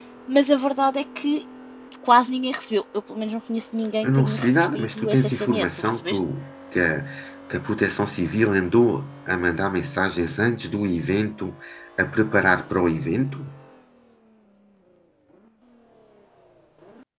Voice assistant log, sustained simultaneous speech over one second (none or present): present